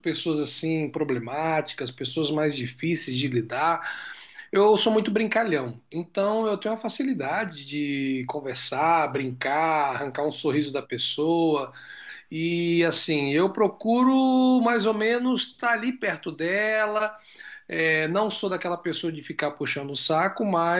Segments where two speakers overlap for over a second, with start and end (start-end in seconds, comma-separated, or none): none